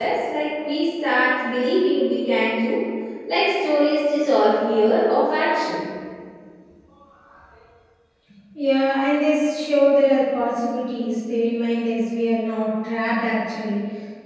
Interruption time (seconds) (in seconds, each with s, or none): none